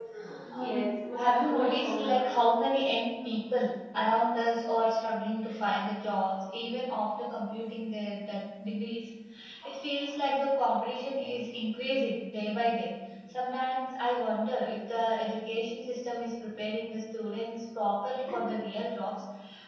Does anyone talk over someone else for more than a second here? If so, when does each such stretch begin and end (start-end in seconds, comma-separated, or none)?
0.6-2.2